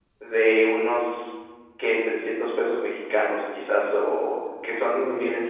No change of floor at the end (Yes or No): Yes